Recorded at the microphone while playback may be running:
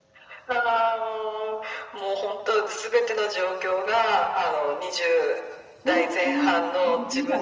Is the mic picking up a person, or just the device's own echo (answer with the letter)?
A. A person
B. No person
A